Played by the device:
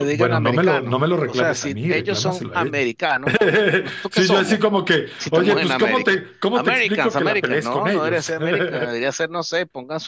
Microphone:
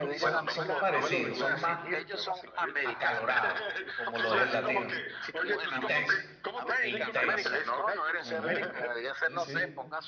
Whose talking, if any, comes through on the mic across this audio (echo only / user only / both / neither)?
both